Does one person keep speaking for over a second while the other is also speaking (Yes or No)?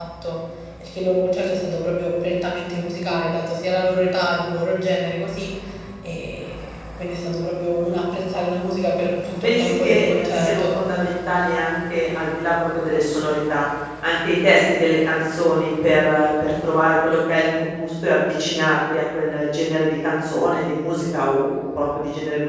Yes